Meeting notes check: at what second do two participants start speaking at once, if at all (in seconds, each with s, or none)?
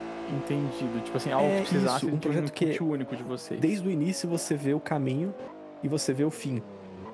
1.4 s